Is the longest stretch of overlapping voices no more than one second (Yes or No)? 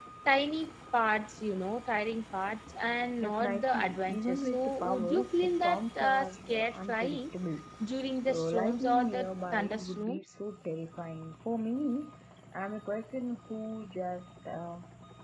No